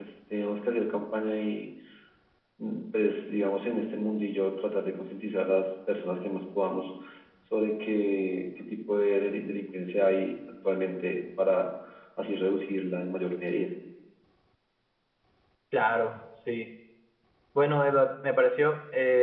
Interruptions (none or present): none